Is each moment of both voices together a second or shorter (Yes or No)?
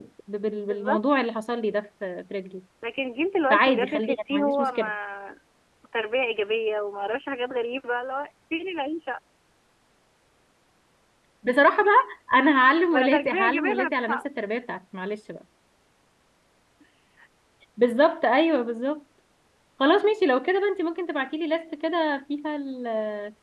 No